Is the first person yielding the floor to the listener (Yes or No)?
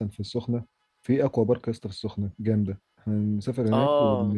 No